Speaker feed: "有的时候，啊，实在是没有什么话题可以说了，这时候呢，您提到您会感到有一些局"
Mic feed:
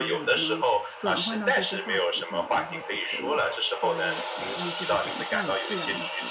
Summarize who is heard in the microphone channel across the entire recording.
both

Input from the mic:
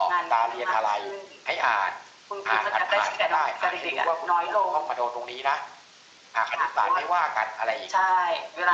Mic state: echo only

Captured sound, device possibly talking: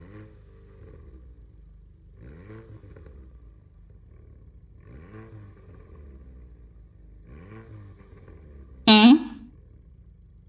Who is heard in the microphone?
user only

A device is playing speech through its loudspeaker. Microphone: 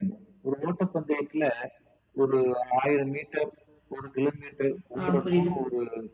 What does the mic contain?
both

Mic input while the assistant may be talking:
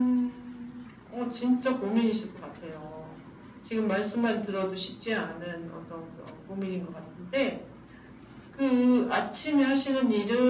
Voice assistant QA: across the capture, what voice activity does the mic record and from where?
echo only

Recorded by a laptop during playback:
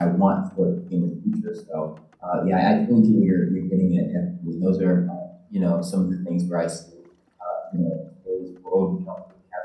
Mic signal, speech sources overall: user only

